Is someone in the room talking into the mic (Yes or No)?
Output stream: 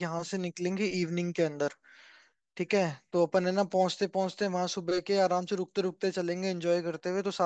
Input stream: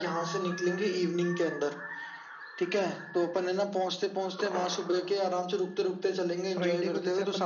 Yes